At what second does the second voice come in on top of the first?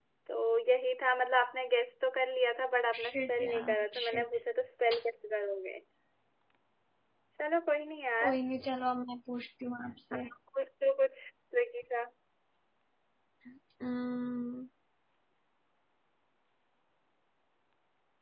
2.9 s

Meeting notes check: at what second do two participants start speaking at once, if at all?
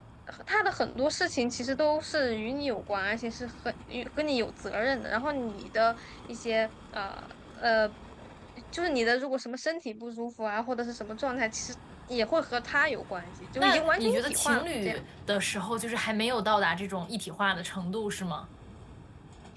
13.6 s

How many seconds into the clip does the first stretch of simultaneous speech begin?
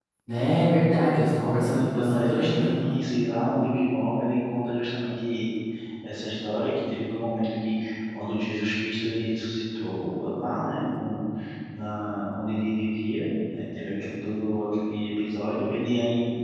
1.2 s

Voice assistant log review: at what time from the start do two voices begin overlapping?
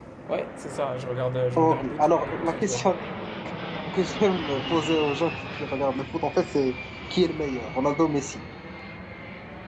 1.6 s

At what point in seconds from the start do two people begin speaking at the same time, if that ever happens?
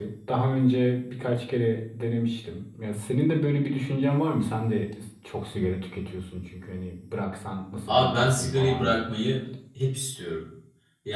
7.9 s

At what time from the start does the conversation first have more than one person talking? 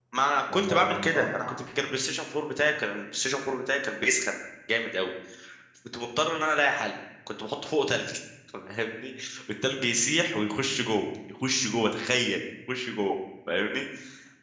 0.5 s

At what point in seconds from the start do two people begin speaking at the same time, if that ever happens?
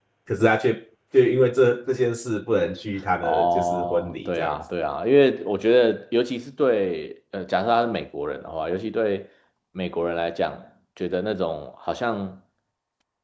3.2 s

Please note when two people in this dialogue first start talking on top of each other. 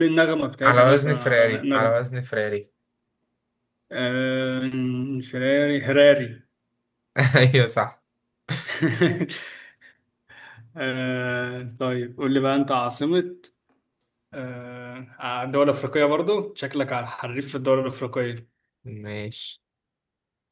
0.6 s

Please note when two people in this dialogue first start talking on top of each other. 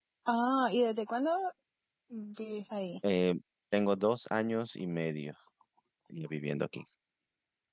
none

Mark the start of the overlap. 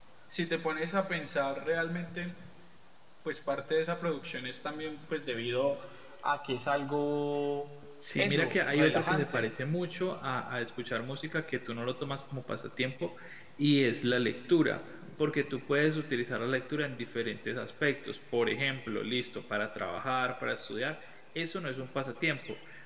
8.2 s

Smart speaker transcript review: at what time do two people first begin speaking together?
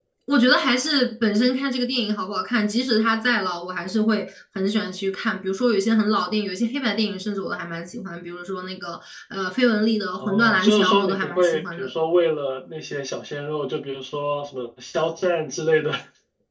10.2 s

